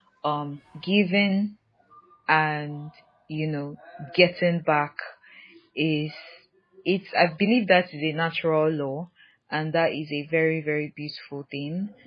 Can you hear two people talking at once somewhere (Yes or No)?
No